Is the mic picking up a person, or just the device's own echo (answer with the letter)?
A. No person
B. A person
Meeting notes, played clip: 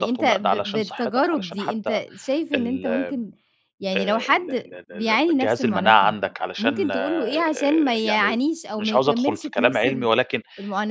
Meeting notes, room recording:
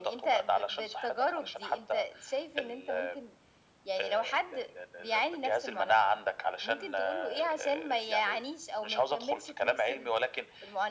A